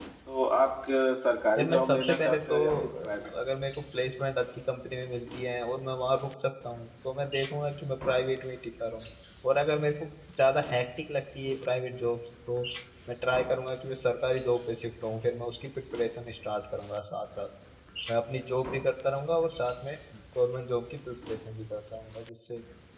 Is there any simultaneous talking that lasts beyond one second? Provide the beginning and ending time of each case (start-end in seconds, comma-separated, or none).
1.6-3.3